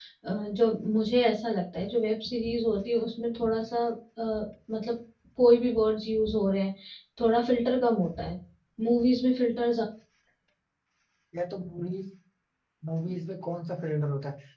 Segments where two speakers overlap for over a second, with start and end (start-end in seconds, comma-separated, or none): none